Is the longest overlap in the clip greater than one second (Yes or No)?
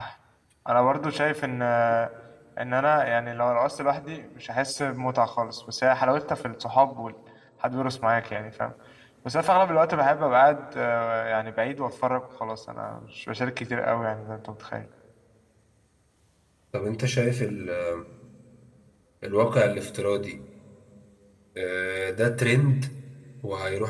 No